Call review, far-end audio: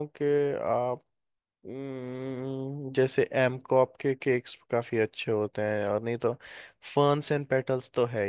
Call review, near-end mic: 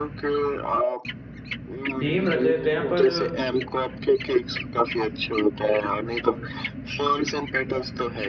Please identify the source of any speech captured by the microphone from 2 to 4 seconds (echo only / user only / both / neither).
both